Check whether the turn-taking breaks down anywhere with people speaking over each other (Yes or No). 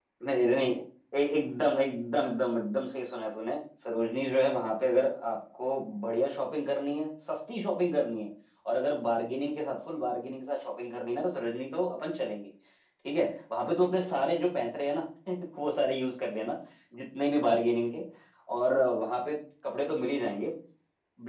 No